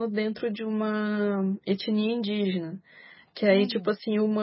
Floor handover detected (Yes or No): No